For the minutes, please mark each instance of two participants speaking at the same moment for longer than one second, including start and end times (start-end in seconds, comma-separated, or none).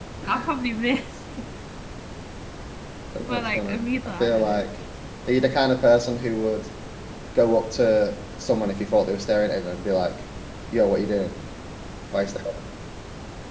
3.2-4.6